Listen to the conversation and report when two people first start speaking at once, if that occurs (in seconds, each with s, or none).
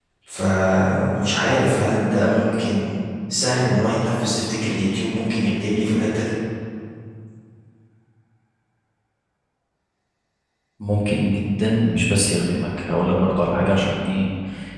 none